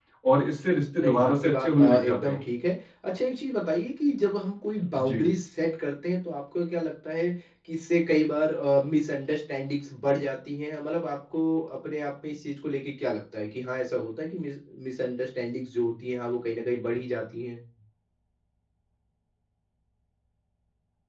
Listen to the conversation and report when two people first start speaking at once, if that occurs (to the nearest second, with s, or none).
1 s